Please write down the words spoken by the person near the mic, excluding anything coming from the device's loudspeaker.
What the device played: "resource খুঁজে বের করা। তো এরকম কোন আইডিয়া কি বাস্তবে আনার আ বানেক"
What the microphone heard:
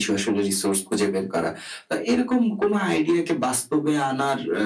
none

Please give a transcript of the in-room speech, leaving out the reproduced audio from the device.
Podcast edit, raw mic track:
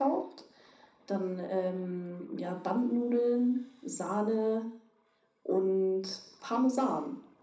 none

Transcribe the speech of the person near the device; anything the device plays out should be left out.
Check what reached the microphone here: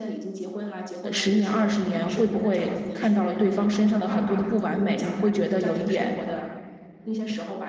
10年、20年会不会看到了对方身上的很多的不完美，你会觉得有一点

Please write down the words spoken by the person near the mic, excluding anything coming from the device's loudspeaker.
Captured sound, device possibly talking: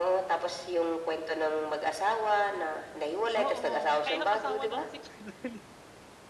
Oo, naka-ilang asawa na nga si Carlo Dalisay.

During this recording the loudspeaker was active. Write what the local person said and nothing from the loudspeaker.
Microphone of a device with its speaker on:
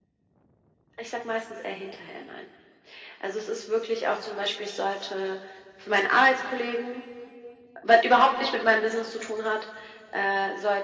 none

